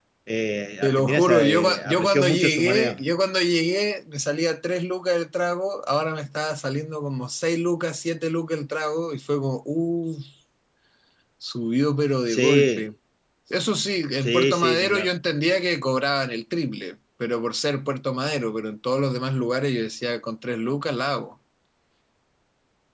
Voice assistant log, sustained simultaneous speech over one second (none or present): present